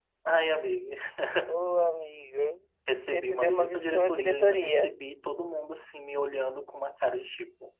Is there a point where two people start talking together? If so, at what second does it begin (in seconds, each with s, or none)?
3.1 s